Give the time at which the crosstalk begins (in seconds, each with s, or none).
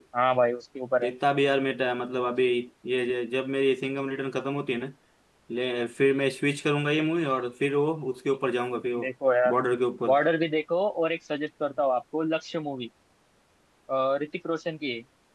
none